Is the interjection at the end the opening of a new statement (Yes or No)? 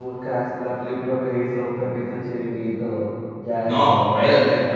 Yes